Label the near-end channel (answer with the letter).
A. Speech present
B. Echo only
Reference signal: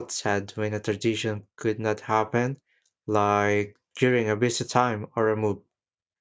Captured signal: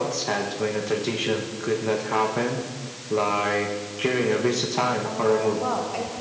A